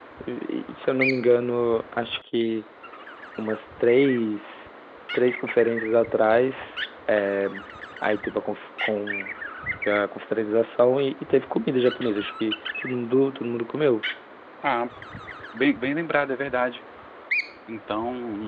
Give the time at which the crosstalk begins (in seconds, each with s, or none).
none